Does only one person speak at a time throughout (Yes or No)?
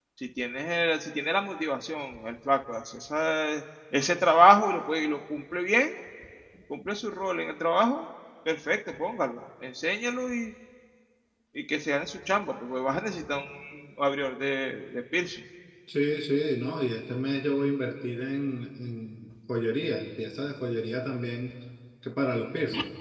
Yes